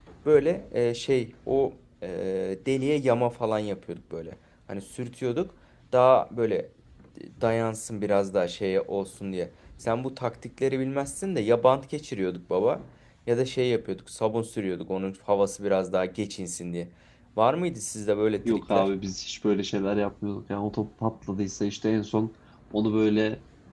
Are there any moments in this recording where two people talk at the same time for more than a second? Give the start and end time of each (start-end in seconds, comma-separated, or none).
none